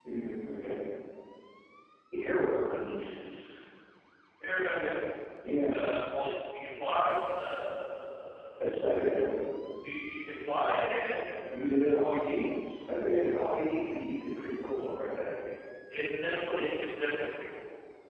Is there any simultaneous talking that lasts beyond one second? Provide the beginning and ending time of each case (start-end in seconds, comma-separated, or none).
none